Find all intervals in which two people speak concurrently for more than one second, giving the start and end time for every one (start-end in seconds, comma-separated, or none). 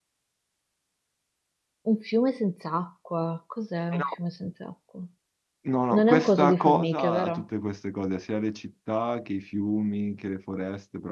5.9-7.4